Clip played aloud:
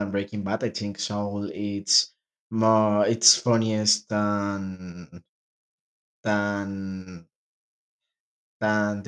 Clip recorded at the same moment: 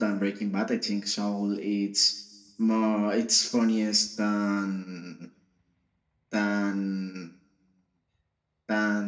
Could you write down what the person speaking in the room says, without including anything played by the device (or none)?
none